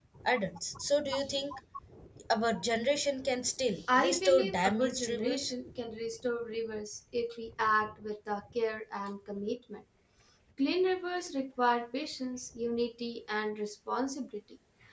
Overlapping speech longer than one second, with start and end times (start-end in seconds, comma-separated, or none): 3.9-5.5